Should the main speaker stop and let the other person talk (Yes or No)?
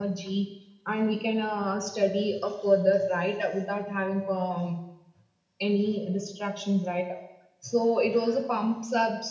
No